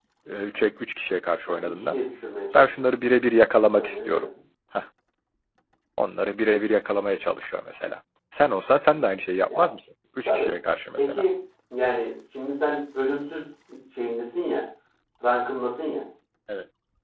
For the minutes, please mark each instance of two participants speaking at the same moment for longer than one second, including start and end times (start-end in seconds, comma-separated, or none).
none